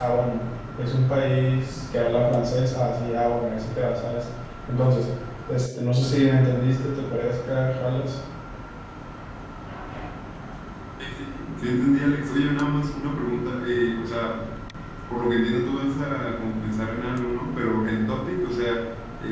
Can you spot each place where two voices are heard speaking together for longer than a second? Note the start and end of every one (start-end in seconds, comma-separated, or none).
none